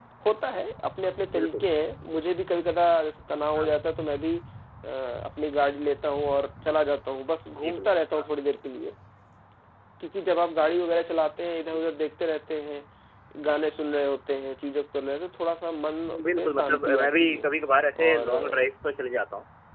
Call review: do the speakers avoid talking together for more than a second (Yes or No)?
No